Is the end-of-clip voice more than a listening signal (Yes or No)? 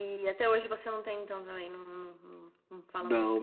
Yes